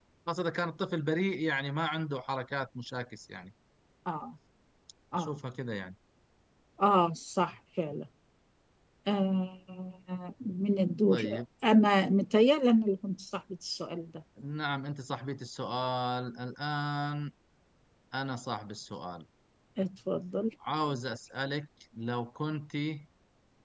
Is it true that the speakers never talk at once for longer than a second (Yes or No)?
Yes